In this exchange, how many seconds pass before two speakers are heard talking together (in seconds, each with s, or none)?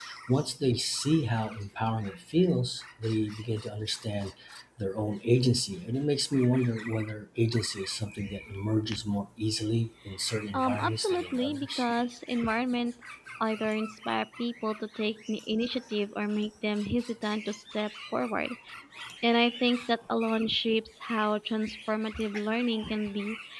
10.5 s